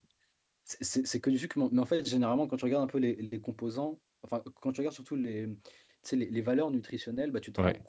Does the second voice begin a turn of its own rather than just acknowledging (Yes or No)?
No